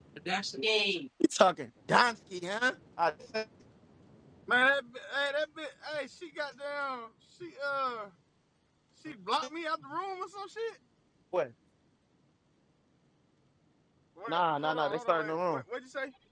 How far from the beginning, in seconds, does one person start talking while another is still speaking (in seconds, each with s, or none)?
14.3 s